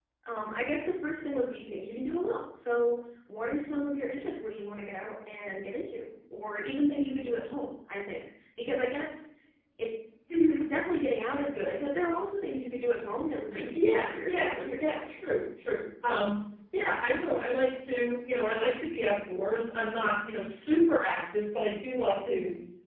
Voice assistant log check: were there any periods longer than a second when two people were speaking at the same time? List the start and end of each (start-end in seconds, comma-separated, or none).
13.7-15.4